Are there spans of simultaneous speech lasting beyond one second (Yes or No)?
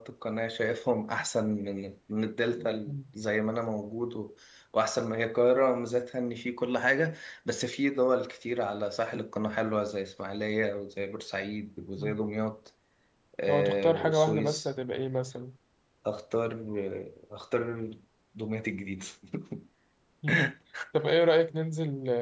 Yes